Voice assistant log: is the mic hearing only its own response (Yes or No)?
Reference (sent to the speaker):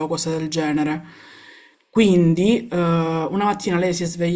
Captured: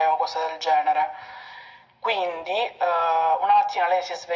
Yes